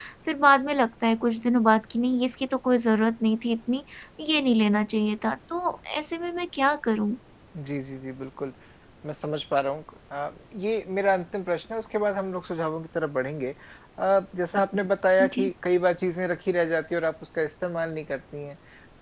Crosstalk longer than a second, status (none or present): none